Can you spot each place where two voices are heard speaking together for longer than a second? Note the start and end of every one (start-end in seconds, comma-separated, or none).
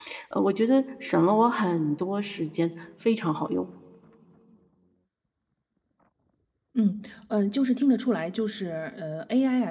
none